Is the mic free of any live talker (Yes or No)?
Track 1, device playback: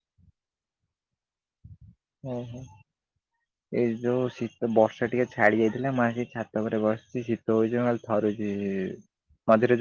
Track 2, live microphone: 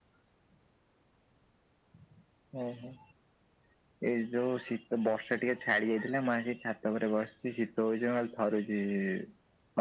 Yes